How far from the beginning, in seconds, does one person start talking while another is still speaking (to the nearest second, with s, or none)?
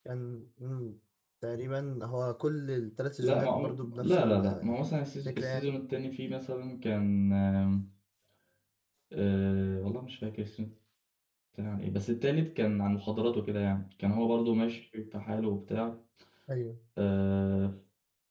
3 s